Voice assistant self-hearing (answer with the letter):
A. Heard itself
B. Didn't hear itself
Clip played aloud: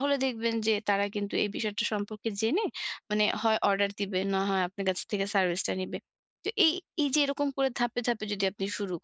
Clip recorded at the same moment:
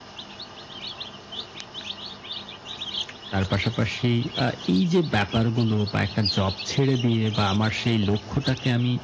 B